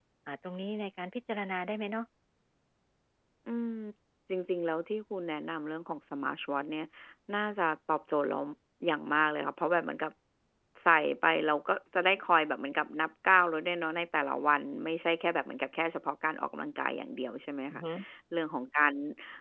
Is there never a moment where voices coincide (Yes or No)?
Yes